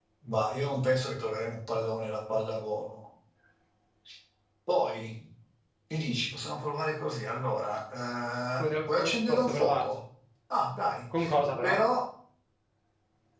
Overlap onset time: 8.6 s

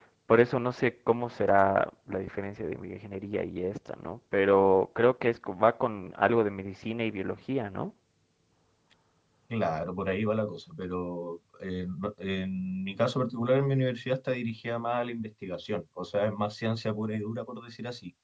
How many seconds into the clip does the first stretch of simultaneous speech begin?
none

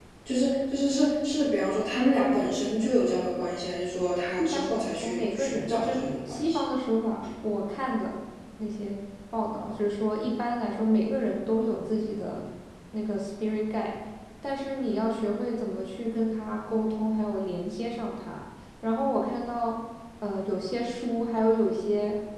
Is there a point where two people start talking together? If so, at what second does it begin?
4.5 s

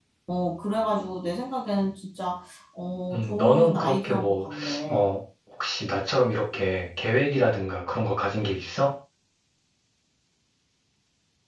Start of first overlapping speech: 3.1 s

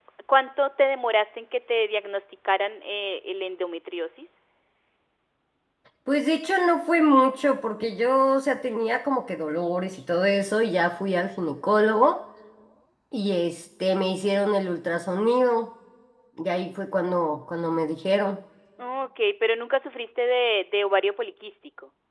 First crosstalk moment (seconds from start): none

